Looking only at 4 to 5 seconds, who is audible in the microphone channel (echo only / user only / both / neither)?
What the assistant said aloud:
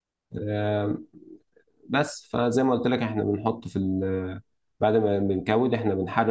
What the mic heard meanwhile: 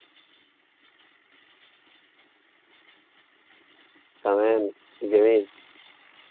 user only